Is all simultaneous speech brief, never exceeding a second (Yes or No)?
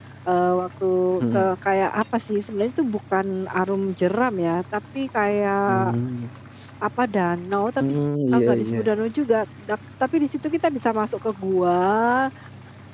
Yes